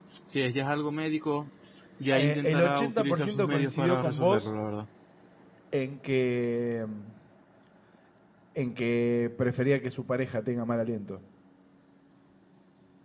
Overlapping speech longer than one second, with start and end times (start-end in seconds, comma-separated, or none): 2.1-4.5